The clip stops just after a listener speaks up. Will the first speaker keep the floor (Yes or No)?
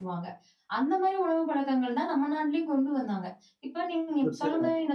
Yes